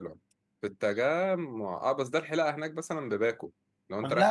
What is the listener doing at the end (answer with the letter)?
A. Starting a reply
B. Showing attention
A